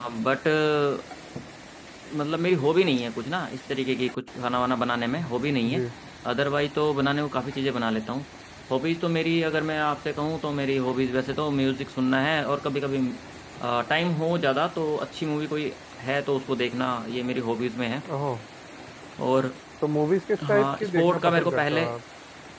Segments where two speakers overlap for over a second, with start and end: 20.5-21.9

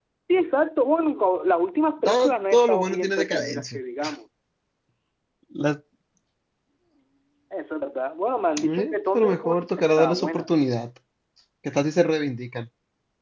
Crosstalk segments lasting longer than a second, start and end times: 2.0-3.8, 8.7-10.5

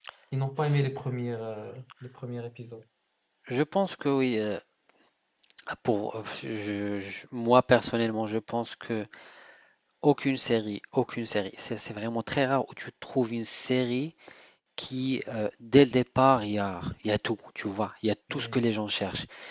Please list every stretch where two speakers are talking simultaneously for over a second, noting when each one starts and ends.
none

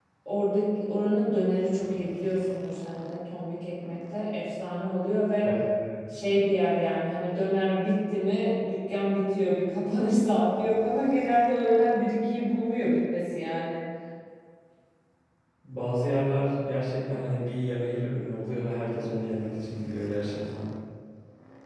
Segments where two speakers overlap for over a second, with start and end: none

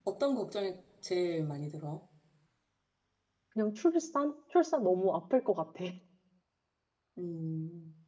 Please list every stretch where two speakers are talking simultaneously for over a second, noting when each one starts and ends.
none

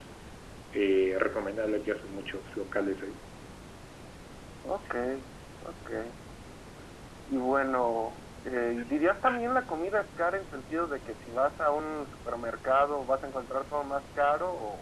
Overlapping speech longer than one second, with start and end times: none

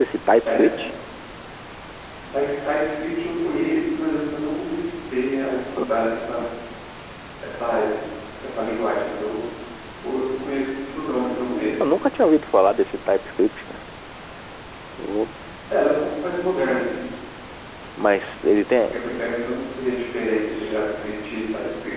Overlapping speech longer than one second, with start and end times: none

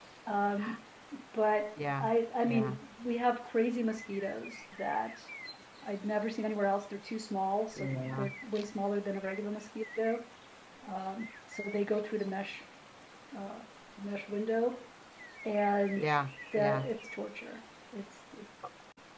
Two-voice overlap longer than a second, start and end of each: none

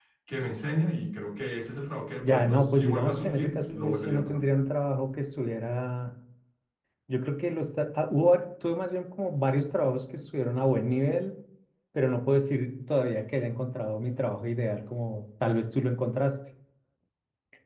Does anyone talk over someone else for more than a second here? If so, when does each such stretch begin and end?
2.2-4.4

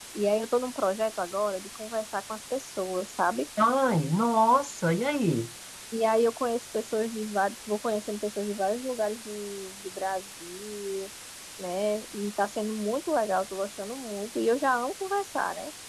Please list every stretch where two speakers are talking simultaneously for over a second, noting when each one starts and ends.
none

